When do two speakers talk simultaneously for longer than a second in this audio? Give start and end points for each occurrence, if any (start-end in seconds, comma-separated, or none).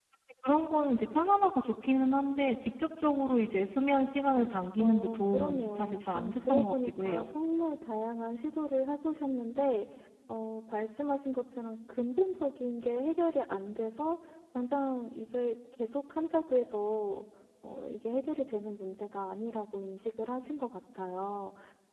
4.8-7.3